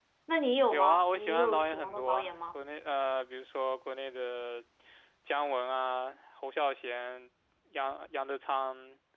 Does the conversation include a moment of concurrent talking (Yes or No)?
Yes